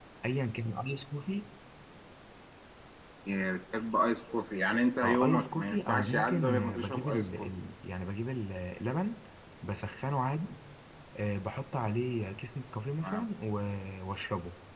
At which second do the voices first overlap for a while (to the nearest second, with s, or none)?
5 s